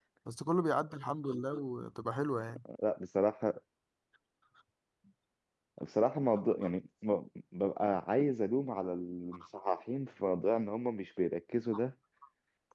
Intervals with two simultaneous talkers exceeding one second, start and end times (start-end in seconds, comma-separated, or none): none